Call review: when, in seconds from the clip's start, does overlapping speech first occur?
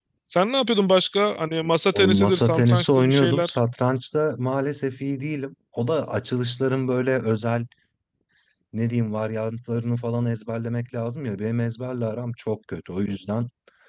1.9 s

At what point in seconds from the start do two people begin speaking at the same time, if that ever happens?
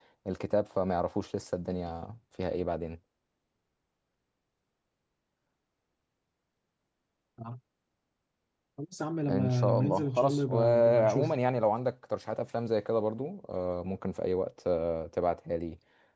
9.3 s

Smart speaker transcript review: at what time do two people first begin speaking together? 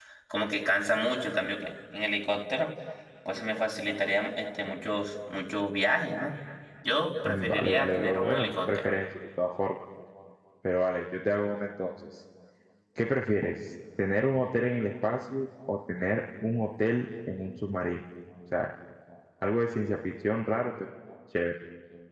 7.2 s

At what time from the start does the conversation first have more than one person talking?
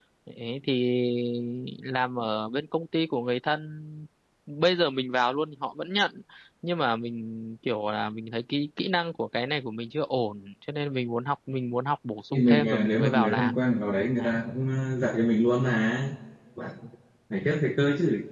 12.3 s

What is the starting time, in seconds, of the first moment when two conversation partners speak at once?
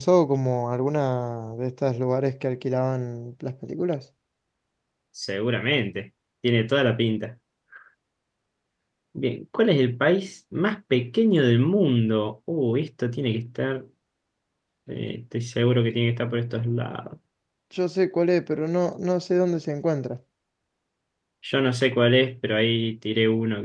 none

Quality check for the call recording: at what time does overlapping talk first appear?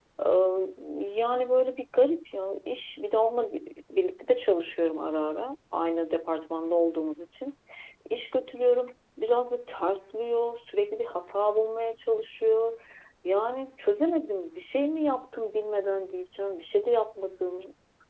none

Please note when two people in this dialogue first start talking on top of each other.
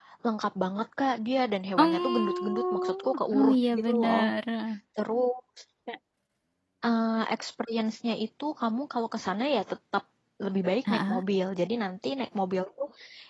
1.8 s

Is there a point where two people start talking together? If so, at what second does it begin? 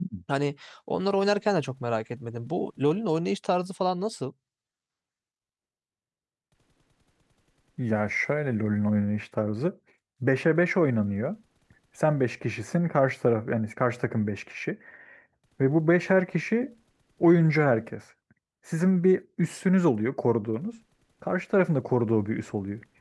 none

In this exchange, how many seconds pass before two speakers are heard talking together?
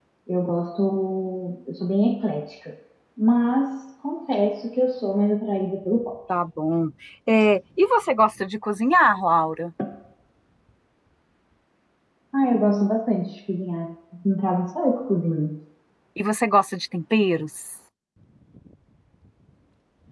none

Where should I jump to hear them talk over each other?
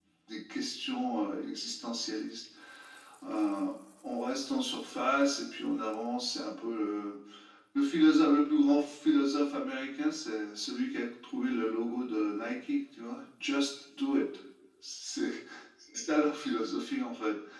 none

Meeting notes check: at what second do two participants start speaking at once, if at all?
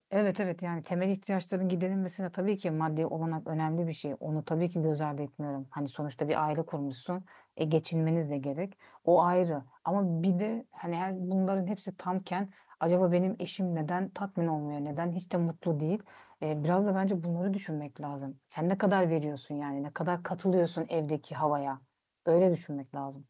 none

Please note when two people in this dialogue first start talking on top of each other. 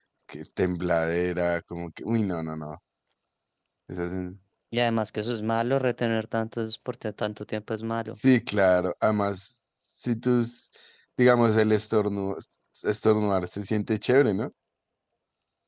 none

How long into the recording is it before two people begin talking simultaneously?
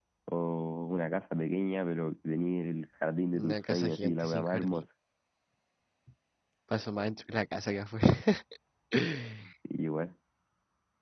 3.4 s

